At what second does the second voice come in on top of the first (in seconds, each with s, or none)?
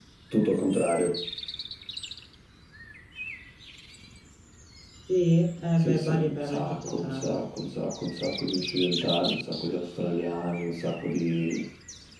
5.8 s